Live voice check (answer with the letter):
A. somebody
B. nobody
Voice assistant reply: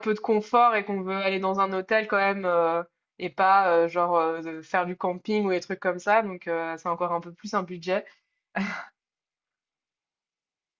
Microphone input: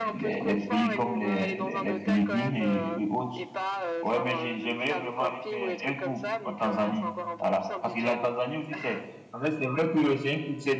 A